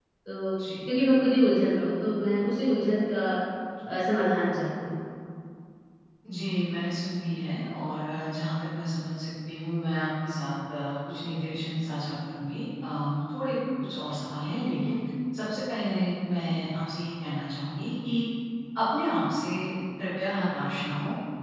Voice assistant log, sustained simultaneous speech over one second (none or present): none